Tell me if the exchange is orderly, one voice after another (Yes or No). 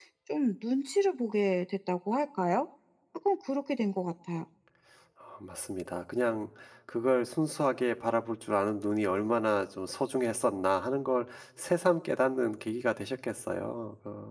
Yes